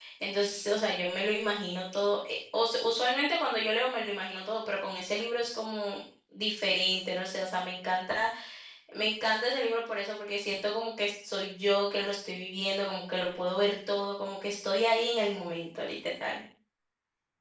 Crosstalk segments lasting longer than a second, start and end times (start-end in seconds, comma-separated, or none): none